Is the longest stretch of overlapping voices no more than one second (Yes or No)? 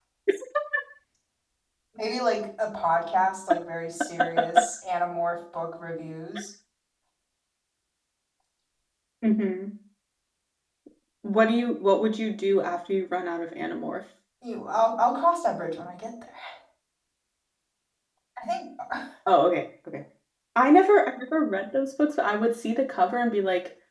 Yes